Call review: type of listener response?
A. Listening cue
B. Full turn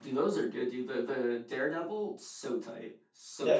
B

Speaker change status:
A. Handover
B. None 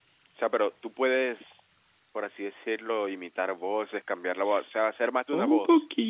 A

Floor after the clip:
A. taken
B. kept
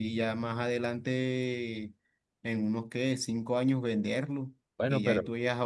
B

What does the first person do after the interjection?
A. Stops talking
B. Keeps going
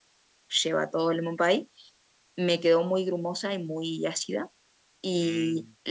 B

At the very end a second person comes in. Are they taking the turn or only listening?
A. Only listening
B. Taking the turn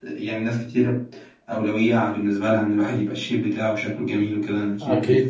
B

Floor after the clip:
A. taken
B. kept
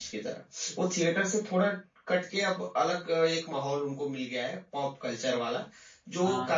B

